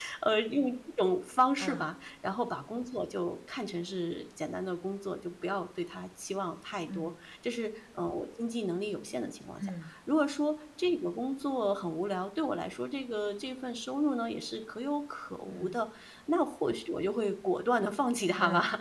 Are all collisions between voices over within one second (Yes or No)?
Yes